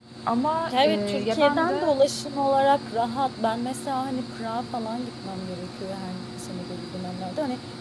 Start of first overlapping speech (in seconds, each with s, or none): 0.7 s